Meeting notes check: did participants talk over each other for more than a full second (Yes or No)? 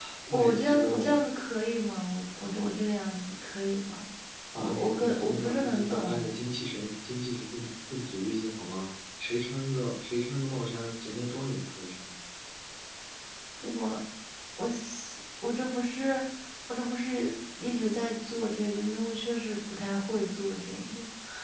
Yes